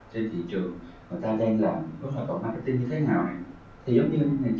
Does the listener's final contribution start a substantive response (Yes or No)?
No